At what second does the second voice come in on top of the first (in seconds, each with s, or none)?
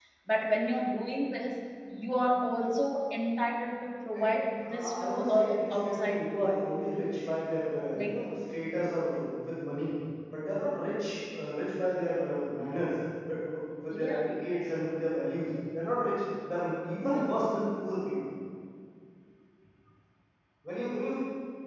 4.1 s